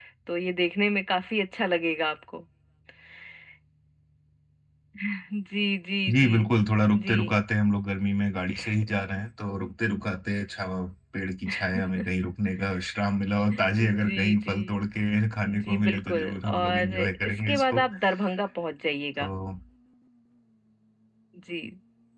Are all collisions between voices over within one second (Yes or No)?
No